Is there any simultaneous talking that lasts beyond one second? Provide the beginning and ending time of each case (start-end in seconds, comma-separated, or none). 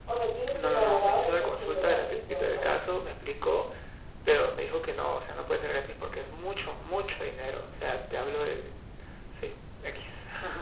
0.5-2.7